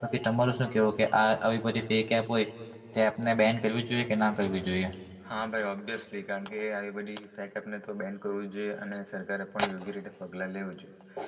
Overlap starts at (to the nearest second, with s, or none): none